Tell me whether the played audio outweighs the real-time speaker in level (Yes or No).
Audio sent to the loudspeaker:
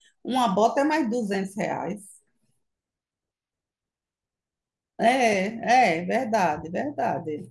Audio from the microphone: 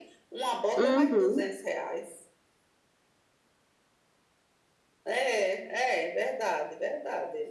No